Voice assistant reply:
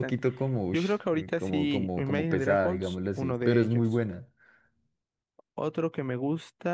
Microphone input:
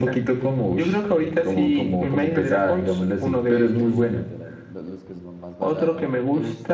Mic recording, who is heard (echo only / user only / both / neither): both